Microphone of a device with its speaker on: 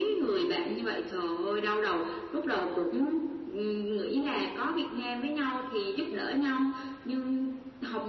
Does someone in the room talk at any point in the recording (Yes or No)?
No